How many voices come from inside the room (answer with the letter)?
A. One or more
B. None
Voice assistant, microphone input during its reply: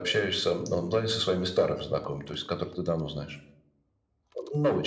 B